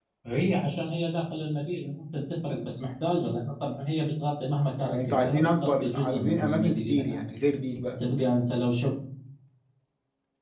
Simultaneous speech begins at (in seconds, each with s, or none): 4.8 s